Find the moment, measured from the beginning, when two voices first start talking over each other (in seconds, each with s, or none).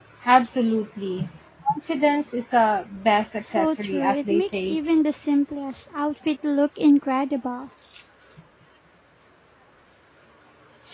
3.6 s